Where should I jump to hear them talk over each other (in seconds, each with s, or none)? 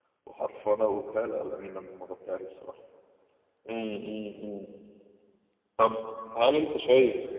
none